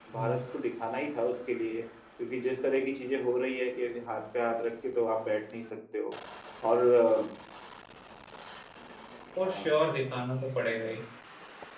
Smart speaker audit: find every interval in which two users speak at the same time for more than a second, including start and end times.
none

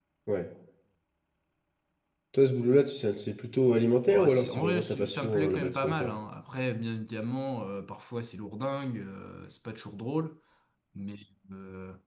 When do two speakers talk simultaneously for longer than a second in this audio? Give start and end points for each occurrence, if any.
4.1-6.1

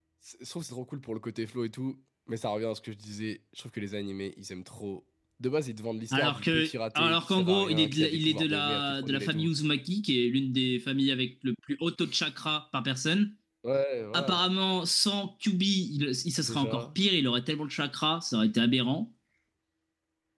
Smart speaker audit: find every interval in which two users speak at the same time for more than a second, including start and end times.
6.1-9.5

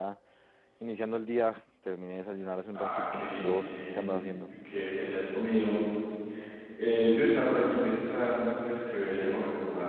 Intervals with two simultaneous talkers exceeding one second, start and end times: 2.7-4.2

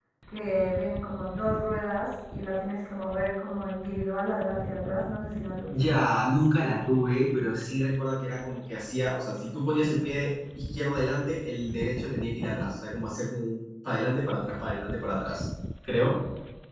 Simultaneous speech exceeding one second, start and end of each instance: none

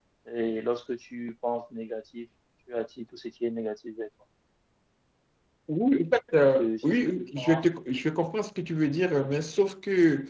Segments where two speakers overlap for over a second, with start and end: 6.3-7.6

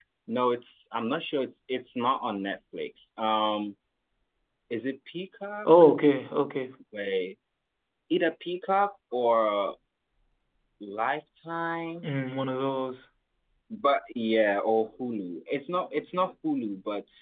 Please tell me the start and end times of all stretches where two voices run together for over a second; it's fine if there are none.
none

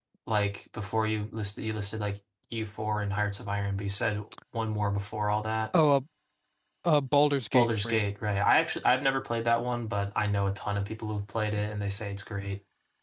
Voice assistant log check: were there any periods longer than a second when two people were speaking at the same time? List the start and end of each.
none

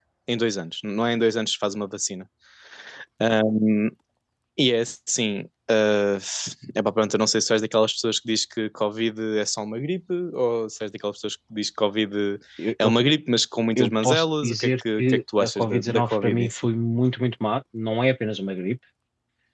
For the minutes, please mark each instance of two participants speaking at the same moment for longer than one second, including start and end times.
13.8-16.7

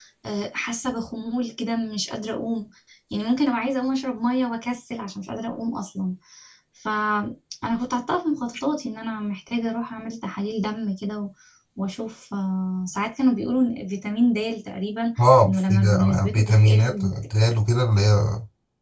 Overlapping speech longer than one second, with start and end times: 15.4-17.1

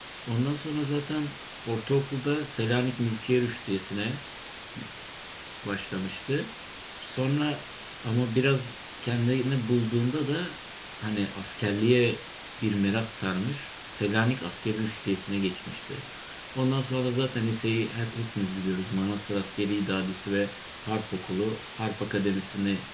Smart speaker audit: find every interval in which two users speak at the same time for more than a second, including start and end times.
none

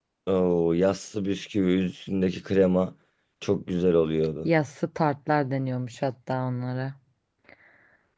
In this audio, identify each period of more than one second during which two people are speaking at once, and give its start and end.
none

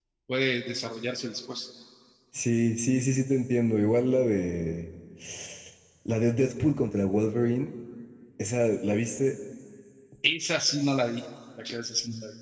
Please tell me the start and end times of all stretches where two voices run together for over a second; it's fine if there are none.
none

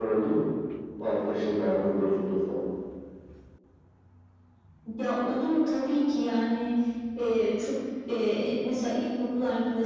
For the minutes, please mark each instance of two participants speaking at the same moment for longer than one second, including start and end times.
none

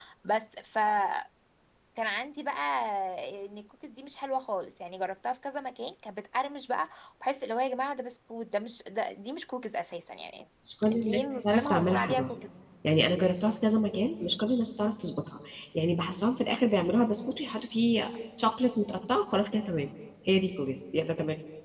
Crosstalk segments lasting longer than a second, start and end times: 10.9-12.3

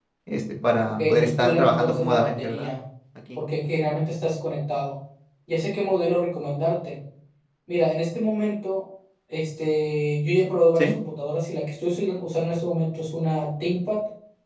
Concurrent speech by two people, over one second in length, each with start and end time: 1.0-2.7

